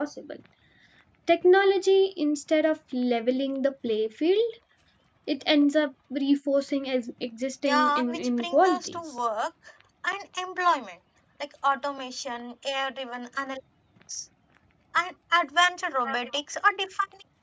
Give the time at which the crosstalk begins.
8 s

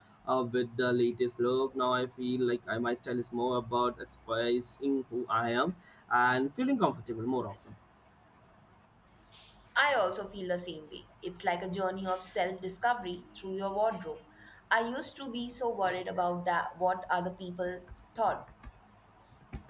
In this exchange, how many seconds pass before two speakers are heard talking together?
none

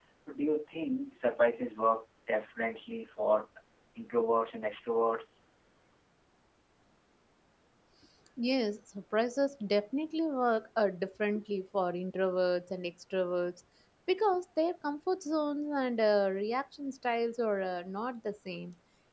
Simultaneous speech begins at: none

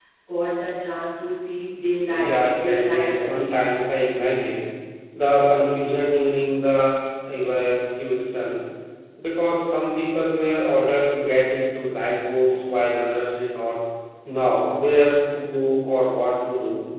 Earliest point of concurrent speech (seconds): 2 s

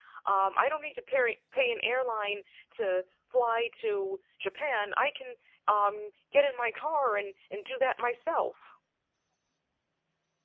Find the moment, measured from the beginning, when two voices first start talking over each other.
none

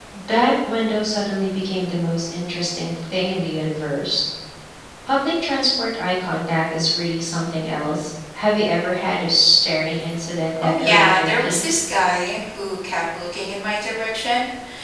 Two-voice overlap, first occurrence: 11 s

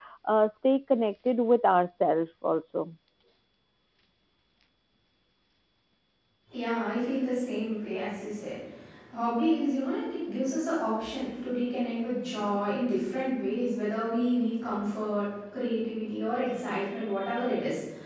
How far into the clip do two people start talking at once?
none

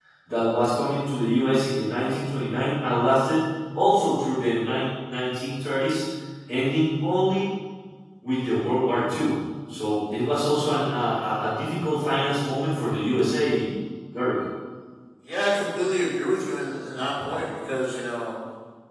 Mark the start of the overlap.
none

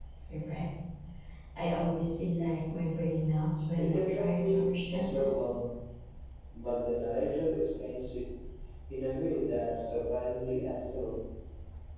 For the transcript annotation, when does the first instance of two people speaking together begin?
4 s

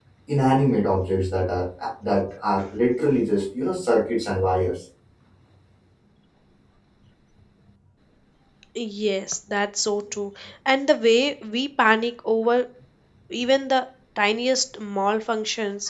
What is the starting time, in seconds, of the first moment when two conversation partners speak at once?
none

